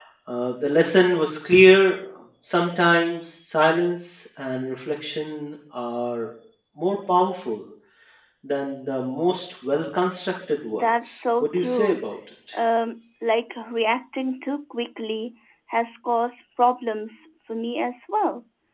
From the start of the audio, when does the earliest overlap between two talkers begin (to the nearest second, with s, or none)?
11 s